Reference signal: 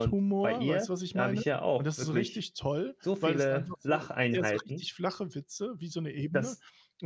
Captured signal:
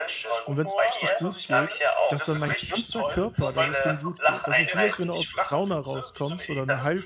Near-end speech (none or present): present